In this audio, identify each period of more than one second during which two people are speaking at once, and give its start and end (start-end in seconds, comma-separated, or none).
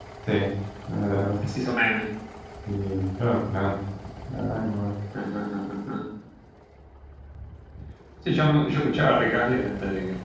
none